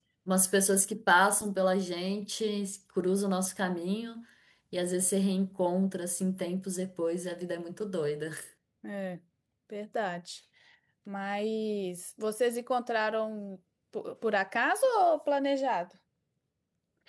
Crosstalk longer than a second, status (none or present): none